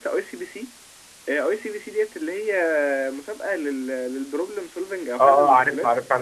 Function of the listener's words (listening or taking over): taking over